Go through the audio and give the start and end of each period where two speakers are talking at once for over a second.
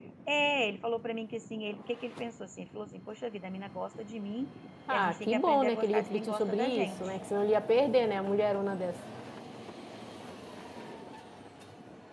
4.9-7.1

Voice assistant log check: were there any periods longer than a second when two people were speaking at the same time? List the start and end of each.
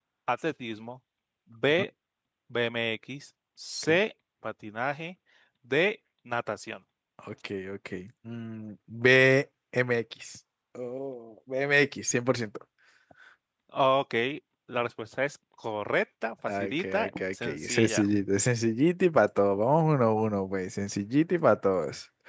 16.5-18.1

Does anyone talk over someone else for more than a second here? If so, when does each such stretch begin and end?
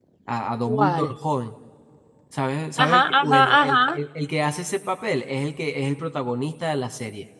2.8-4.0

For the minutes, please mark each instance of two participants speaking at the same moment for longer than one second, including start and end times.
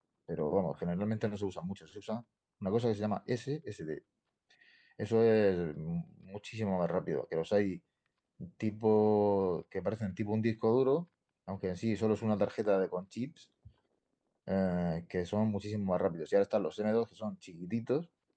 none

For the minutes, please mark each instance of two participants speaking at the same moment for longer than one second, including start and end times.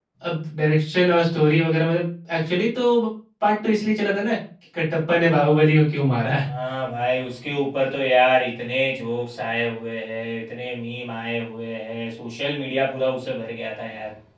none

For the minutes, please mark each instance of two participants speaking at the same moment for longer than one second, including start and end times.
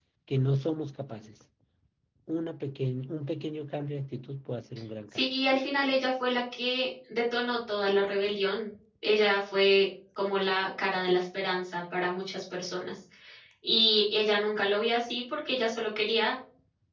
none

